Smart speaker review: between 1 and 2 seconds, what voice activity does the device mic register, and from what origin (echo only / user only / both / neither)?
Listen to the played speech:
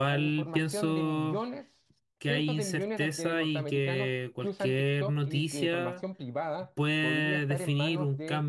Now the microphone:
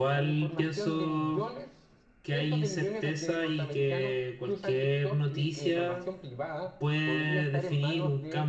echo only